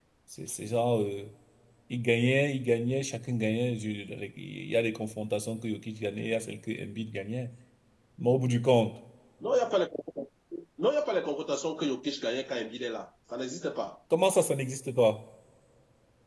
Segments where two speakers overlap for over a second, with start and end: none

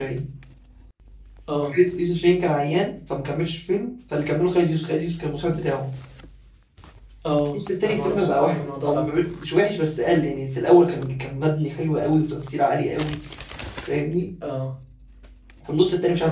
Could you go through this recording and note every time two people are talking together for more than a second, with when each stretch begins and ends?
7.8-9.0

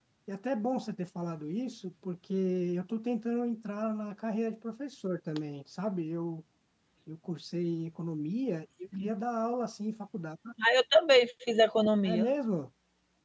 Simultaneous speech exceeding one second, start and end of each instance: none

